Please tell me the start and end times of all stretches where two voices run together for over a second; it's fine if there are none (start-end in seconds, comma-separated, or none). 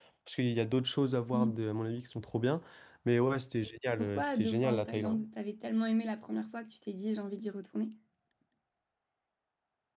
4.0-5.2